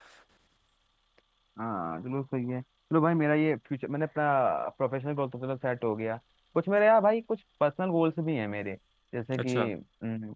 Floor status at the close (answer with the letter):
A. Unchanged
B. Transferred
A